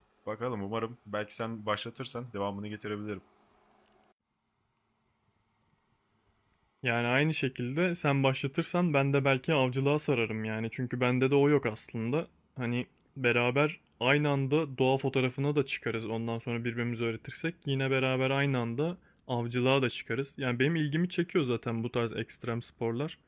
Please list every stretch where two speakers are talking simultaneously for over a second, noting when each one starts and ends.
none

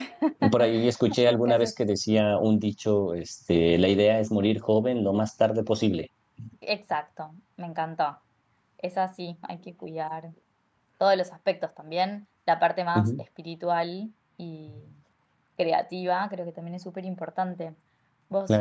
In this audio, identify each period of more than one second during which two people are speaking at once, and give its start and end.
none

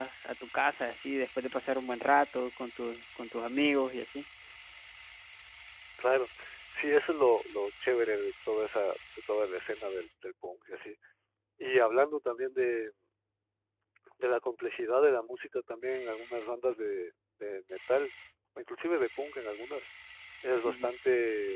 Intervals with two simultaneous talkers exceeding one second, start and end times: none

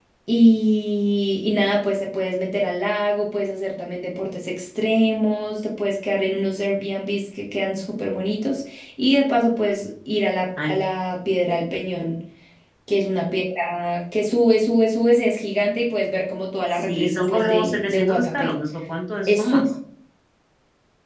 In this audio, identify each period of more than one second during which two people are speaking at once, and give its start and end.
16.7-18.5

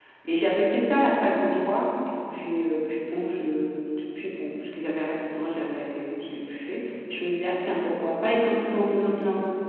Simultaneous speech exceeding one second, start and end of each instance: none

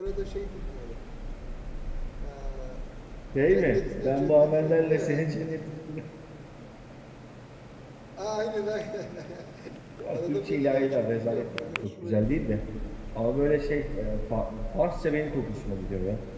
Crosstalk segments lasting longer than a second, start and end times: 3.5-5.3, 10.1-12.4

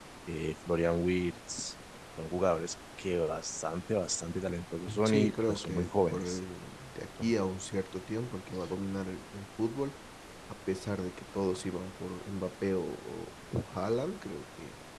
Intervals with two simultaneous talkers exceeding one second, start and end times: 5.0-6.4

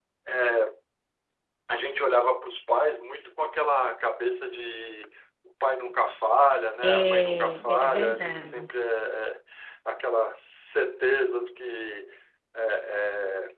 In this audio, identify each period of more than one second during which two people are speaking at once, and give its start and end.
6.8-8.6

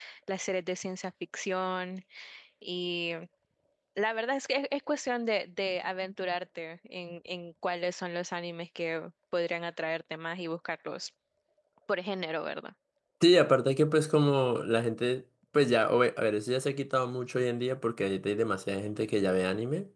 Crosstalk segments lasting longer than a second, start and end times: none

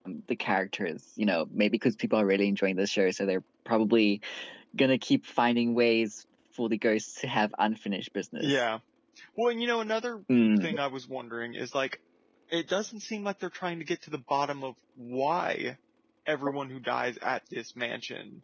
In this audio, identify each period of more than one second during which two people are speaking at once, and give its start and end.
none

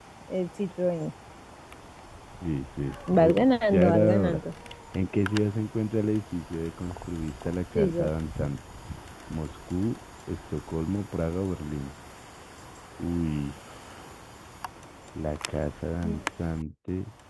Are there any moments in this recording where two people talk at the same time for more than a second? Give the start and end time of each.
3.1-4.4

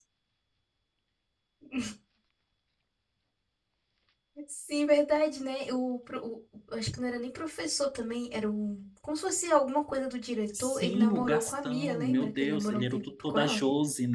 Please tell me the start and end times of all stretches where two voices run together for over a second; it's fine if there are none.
10.6-13.6

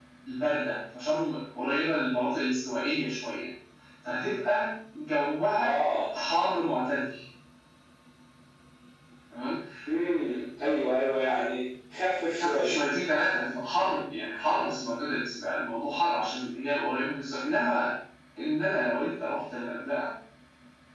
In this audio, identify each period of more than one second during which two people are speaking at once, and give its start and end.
none

